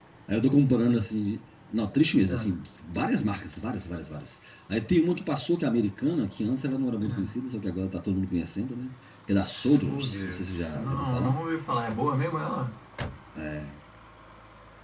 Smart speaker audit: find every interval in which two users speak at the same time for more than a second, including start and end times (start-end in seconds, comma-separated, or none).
9.6-11.3